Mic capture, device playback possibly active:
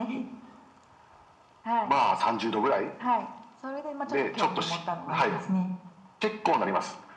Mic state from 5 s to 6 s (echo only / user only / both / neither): echo only